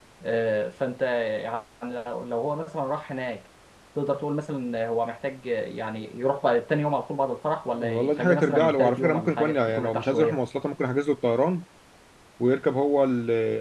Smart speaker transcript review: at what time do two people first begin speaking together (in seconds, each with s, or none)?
7.7 s